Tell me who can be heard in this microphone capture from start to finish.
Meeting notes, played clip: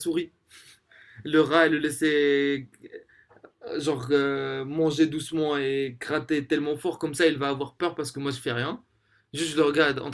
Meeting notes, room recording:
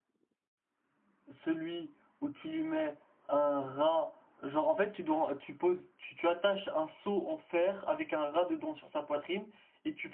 user only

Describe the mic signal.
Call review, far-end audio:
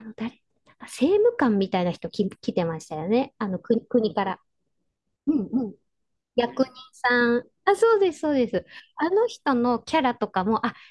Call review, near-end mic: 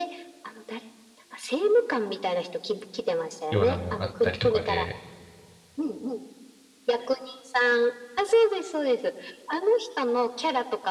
both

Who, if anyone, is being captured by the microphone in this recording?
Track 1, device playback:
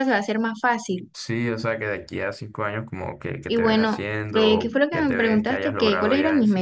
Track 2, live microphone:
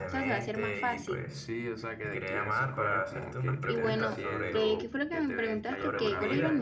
both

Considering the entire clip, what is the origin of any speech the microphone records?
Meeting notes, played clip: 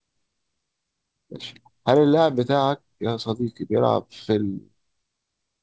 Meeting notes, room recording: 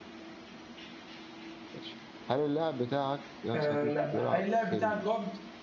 both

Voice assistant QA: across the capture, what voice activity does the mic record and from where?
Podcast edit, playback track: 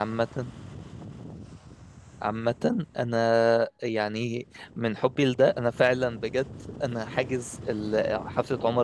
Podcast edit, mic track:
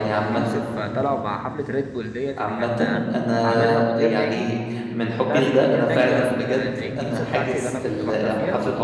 both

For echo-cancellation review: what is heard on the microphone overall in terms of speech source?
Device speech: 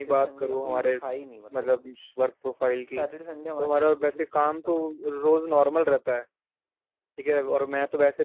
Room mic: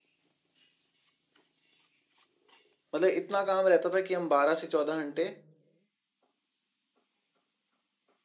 user only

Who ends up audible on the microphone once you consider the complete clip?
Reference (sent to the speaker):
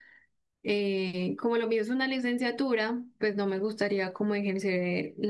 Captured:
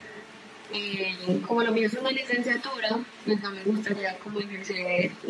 echo only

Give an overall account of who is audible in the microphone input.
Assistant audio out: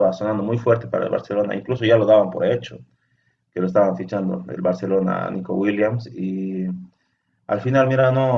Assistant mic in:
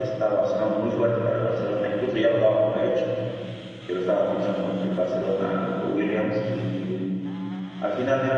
echo only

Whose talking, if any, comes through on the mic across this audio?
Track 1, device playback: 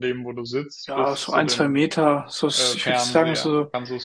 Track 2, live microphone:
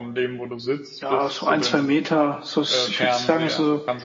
echo only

